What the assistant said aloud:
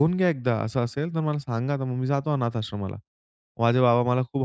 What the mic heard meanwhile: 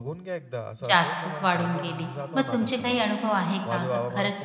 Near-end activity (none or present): present